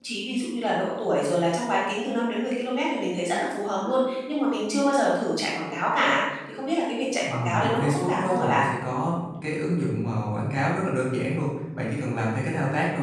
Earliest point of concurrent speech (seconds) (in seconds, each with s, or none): 7.2 s